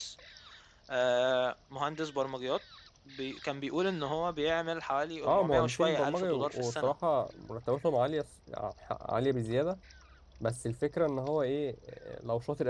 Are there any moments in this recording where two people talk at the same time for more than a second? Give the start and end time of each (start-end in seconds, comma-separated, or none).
5.2-6.9